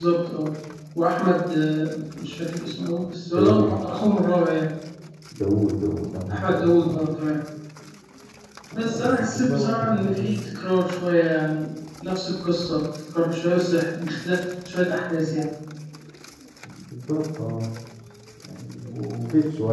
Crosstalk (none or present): present